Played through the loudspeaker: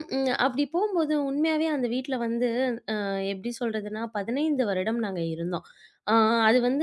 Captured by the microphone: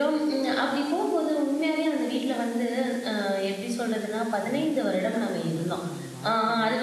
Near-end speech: present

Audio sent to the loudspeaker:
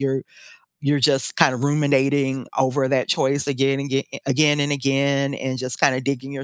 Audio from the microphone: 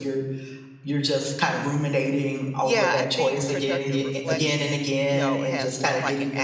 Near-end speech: present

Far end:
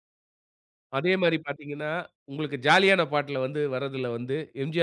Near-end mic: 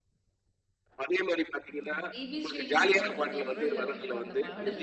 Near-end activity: present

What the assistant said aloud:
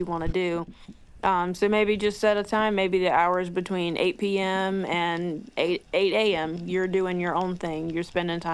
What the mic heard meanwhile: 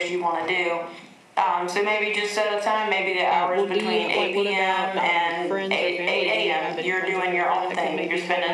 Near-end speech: present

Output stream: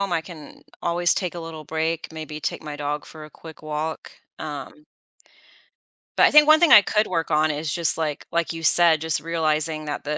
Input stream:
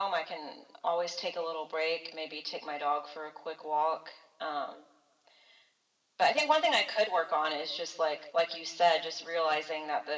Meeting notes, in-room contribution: none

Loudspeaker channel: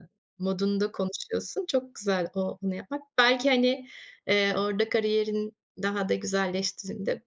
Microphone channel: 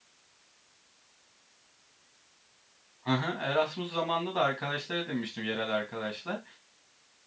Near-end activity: present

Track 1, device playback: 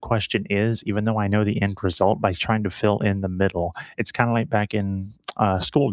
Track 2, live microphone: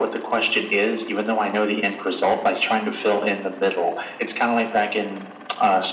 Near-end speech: none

